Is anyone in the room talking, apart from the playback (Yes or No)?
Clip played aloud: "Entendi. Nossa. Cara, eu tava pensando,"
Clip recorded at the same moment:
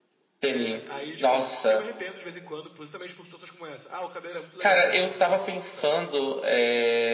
Yes